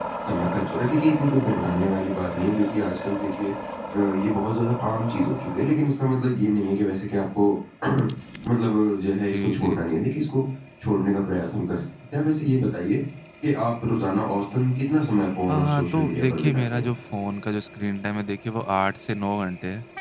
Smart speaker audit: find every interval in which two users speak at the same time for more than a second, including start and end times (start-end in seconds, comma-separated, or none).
15.5-16.9